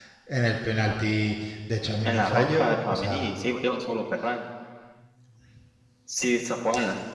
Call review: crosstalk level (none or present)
present